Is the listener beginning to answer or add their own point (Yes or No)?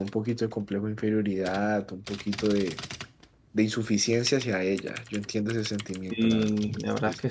Yes